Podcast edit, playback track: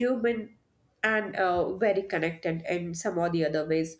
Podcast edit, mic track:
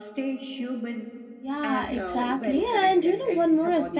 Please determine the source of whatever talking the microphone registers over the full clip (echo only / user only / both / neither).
both